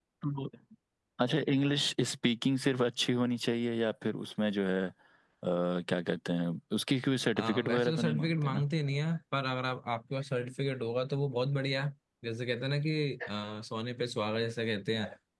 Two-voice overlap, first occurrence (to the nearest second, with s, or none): 7 s